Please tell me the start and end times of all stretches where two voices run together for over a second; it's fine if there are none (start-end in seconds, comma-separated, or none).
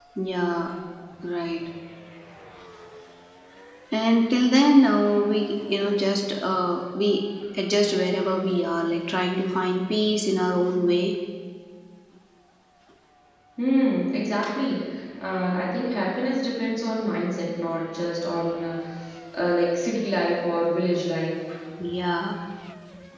none